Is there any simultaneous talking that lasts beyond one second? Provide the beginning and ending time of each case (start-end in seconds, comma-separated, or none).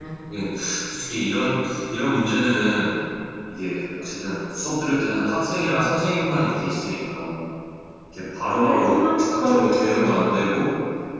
8.6-10.2